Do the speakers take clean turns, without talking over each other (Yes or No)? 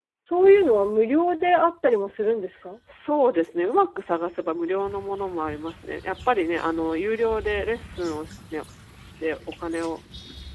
Yes